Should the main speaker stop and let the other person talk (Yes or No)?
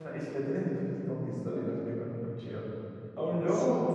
No